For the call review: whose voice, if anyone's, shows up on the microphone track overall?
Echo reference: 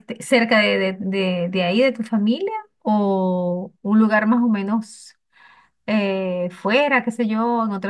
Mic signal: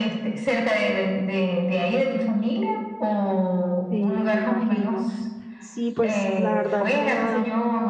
both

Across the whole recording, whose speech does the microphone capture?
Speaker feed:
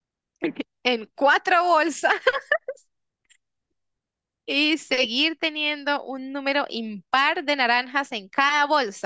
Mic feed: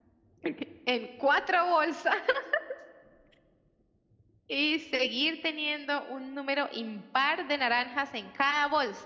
echo only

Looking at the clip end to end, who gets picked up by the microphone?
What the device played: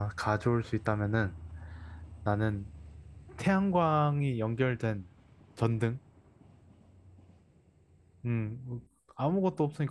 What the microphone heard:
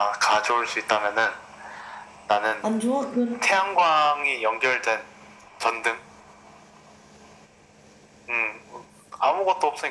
both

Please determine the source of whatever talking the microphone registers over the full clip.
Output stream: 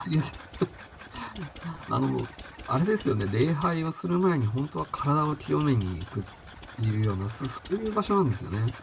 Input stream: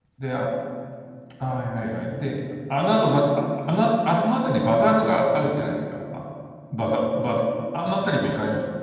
user only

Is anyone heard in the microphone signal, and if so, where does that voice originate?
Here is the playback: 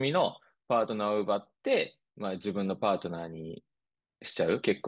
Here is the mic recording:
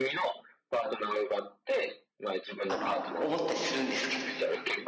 both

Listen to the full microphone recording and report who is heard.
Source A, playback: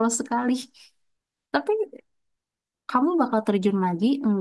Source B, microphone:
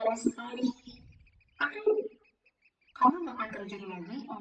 echo only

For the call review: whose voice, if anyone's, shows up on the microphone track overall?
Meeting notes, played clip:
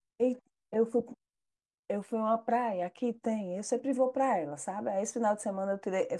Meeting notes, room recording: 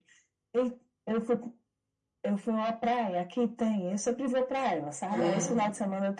both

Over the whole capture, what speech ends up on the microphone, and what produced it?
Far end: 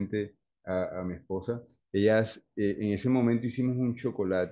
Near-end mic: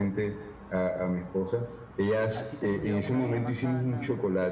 both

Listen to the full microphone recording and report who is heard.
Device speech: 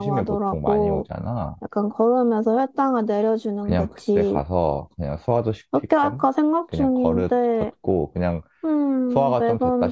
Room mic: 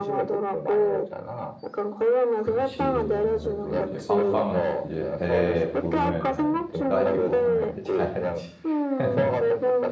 both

